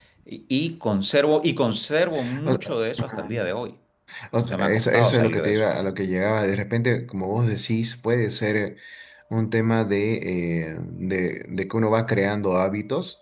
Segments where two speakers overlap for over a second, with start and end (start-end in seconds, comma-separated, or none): 4.4-5.6